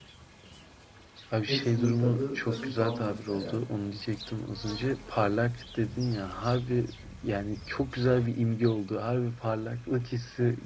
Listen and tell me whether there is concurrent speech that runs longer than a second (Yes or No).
Yes